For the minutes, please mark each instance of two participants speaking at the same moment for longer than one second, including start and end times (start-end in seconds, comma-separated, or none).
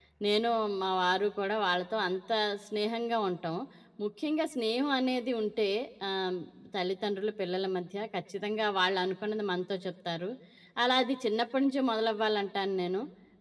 none